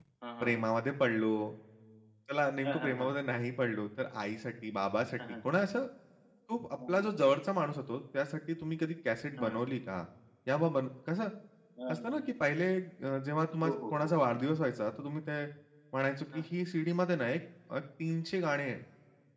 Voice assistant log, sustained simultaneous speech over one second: none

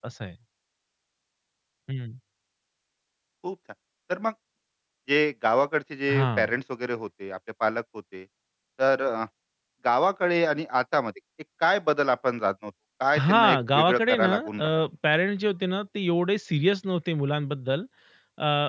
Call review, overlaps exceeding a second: present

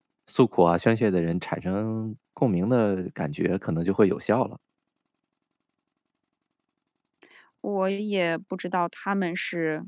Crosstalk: none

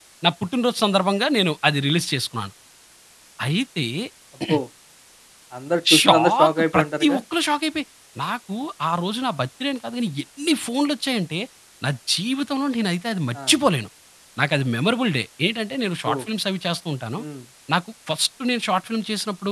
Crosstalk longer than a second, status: present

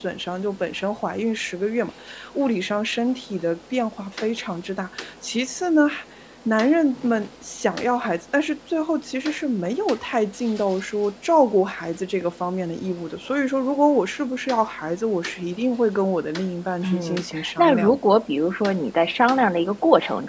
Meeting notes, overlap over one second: present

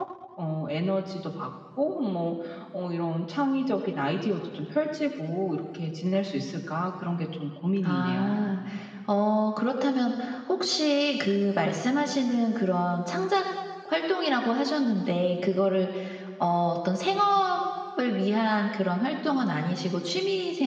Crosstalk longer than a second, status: none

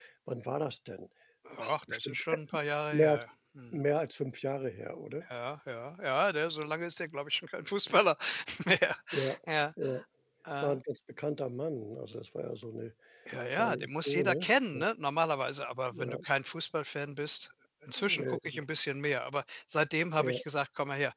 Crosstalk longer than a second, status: present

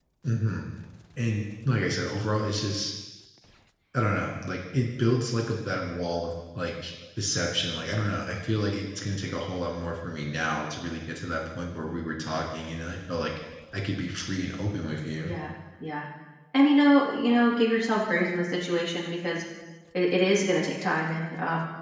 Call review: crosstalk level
none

